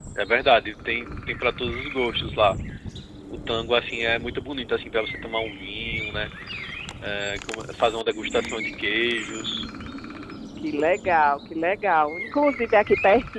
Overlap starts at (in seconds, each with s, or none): none